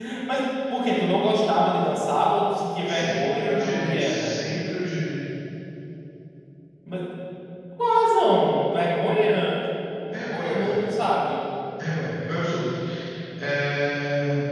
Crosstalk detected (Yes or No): Yes